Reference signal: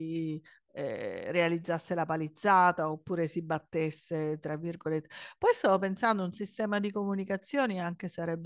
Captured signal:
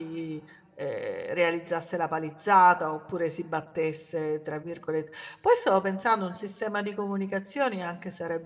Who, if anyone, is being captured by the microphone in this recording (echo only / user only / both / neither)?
echo only